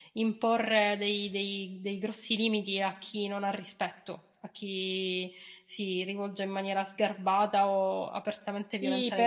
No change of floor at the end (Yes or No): No